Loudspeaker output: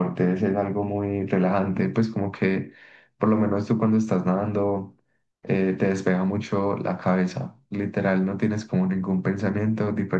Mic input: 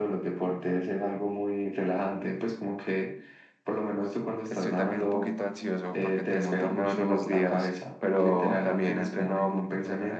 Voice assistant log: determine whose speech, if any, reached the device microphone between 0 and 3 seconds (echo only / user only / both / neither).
echo only